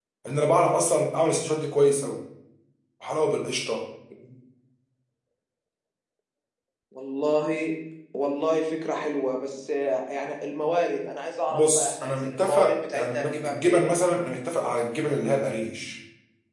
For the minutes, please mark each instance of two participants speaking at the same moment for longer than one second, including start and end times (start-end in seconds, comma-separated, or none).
11.5-13.9